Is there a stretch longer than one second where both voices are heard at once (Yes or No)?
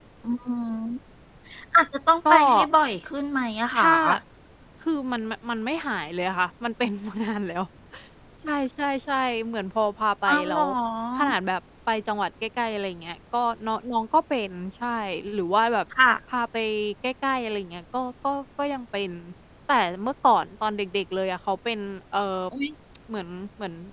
No